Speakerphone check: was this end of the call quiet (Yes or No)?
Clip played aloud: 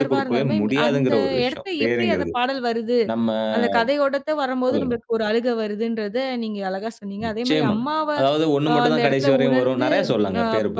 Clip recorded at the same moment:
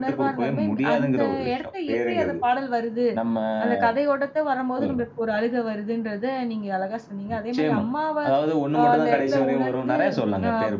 Yes